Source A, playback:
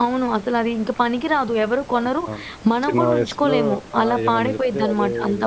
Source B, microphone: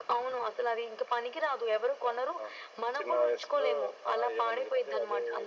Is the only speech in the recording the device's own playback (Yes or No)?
Yes